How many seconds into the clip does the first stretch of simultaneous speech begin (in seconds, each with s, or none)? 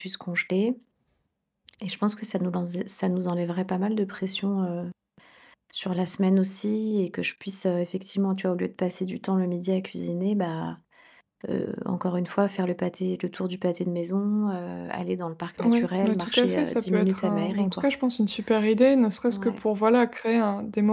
15.6 s